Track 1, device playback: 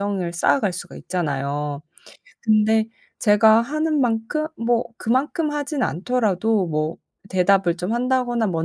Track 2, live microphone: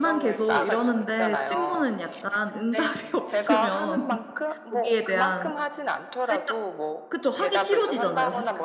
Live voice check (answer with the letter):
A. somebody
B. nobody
A